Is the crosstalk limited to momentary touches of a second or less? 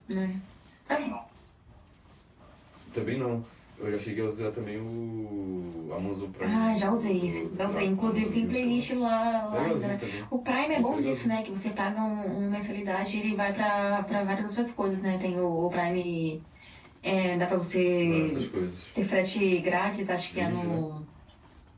No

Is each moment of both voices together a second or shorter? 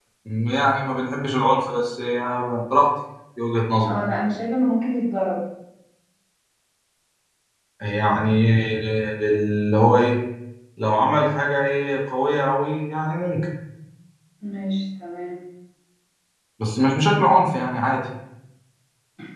Yes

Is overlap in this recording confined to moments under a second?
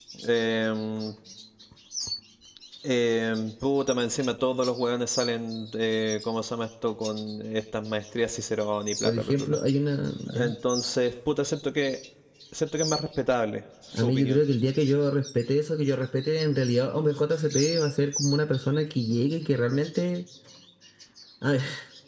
Yes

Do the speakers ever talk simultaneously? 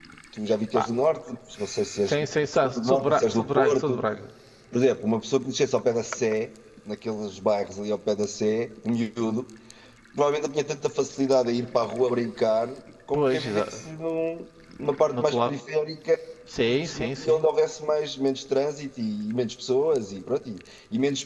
Yes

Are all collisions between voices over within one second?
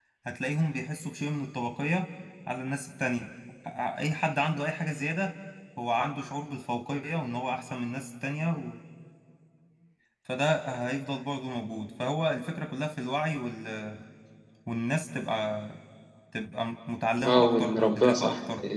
No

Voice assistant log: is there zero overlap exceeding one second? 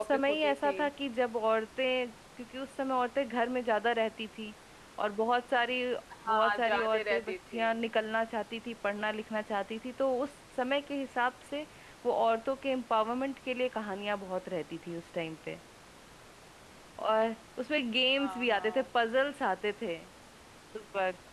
No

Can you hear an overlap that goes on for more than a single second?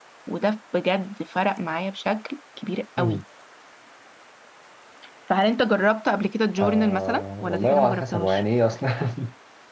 Yes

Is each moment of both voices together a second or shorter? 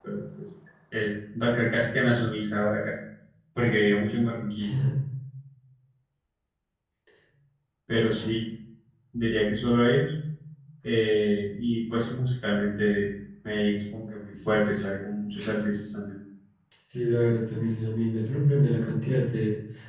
Yes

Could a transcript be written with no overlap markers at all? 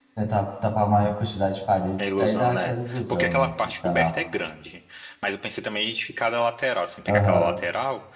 No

